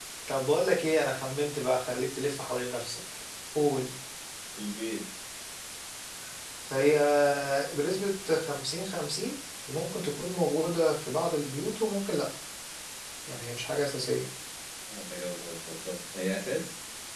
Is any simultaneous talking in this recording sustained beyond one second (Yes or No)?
No